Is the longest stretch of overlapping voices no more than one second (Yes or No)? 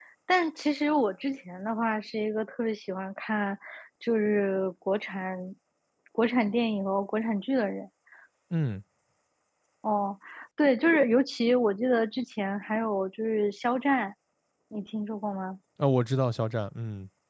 Yes